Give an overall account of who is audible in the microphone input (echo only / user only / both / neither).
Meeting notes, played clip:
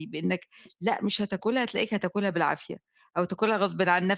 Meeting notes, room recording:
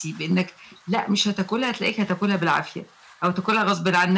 echo only